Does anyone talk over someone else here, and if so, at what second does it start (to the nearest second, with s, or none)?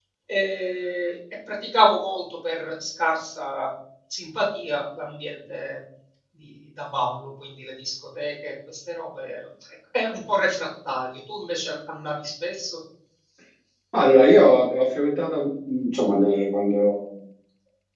none